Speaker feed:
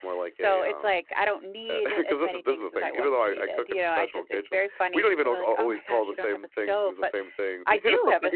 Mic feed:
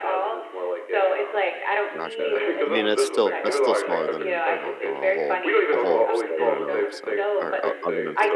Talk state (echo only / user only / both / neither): both